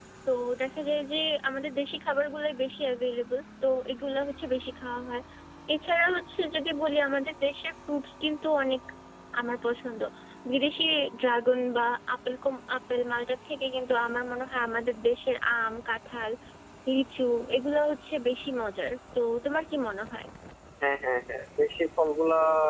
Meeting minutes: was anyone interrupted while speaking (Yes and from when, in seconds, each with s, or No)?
No